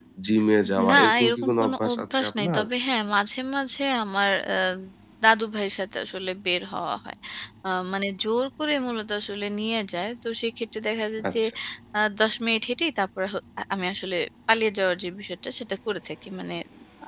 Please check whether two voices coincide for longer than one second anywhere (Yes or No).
Yes